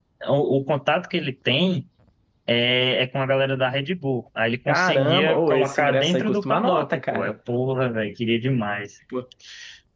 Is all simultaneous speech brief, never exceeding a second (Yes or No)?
No